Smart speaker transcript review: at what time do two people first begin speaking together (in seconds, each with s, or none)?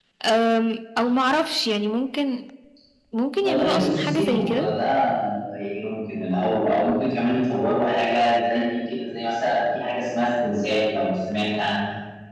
3.4 s